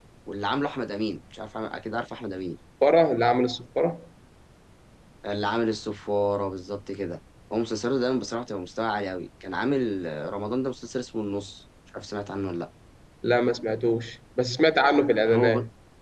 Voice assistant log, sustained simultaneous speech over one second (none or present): none